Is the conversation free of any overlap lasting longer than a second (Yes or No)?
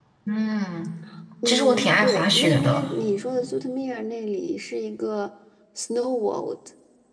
No